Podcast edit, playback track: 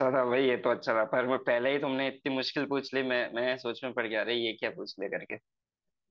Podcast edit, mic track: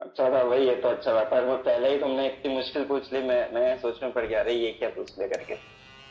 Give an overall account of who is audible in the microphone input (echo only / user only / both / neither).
echo only